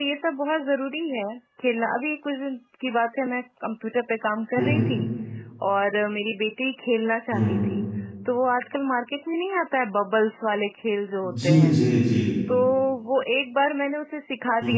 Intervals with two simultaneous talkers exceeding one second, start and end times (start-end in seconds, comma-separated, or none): none